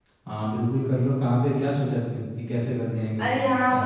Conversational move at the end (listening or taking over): taking over